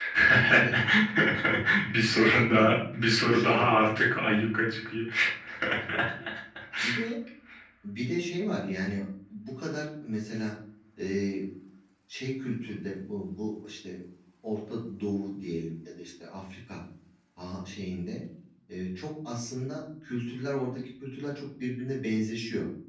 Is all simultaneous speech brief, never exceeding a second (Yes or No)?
No